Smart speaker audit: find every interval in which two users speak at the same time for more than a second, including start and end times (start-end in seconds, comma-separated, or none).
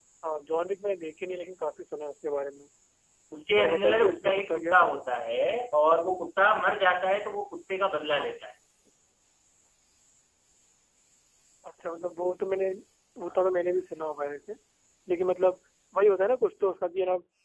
3.6-4.8